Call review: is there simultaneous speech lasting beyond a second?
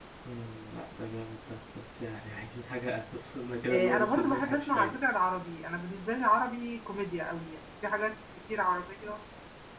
Yes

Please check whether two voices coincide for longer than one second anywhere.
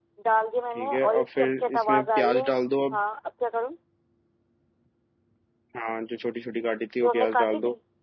Yes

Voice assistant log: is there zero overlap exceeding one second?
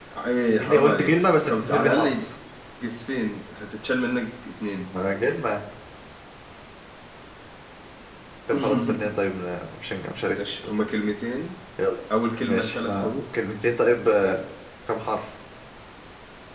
No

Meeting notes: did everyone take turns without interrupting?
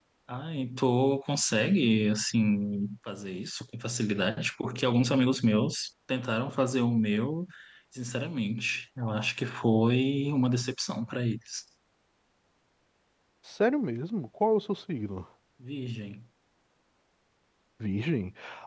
Yes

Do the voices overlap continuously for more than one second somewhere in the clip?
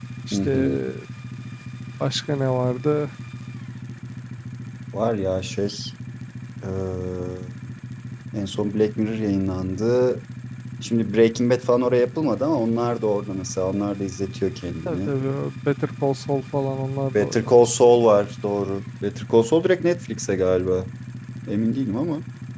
No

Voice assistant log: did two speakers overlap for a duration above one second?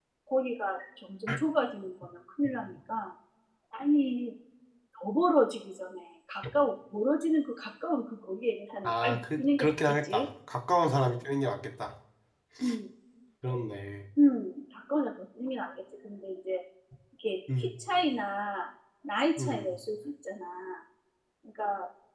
Yes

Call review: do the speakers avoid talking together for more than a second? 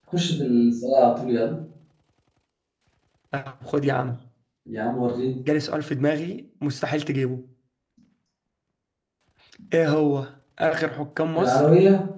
Yes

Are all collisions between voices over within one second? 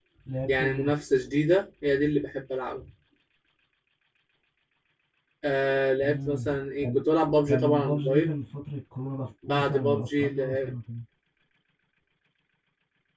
No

